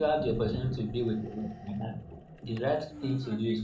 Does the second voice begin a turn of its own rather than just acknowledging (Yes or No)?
No